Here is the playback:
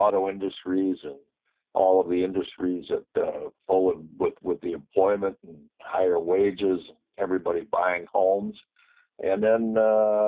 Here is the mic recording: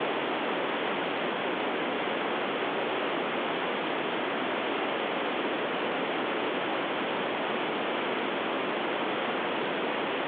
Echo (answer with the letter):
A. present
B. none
B